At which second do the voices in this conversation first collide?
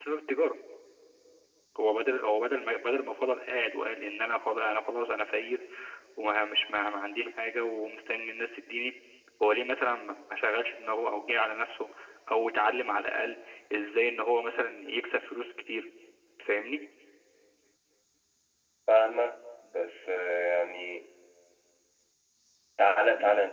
none

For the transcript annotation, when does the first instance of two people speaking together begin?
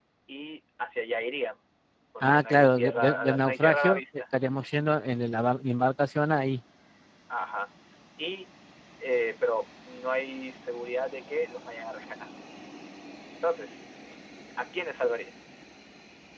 2.2 s

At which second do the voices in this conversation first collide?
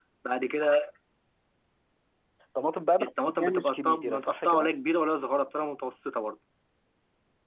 3.0 s

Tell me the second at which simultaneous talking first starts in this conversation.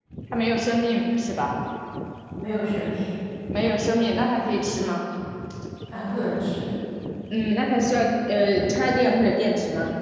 none

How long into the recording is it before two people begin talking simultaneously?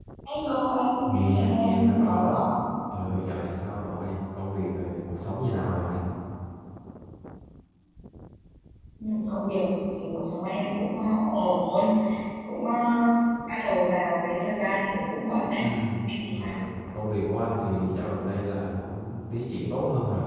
1.1 s

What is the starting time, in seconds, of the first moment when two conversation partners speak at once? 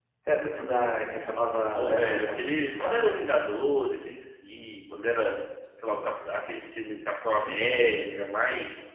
1.7 s

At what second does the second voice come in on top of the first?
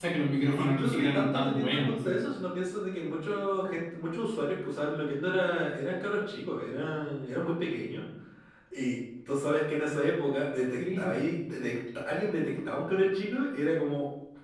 0.6 s

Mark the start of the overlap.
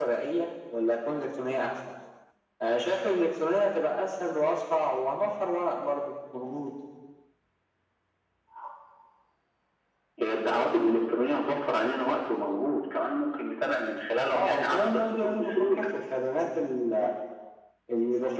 14.3 s

